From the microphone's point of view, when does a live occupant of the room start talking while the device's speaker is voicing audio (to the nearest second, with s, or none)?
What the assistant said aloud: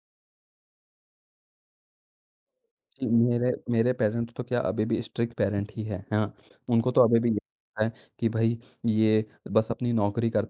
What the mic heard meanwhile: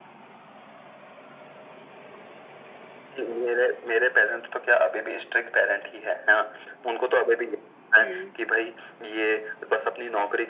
8 s